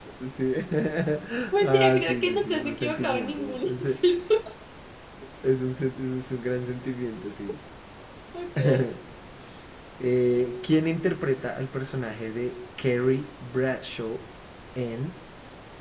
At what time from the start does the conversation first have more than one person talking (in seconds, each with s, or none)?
1.6 s